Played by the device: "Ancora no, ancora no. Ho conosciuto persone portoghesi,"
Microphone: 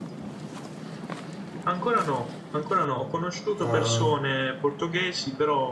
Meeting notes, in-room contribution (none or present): present